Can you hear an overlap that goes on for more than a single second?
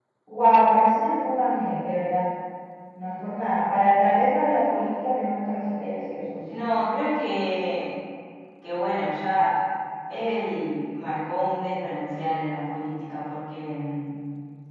No

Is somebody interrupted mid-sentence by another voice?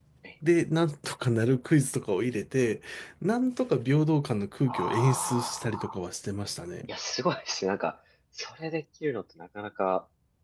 Yes, from 4.7 s

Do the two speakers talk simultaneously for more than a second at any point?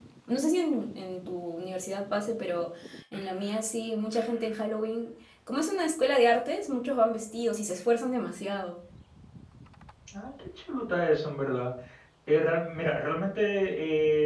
No

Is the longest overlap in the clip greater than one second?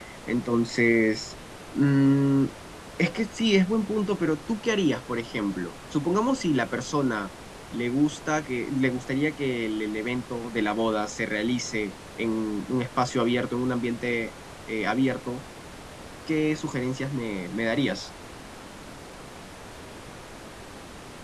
No

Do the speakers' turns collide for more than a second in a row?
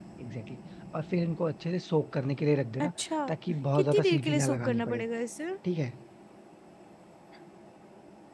Yes, from 3.8 s

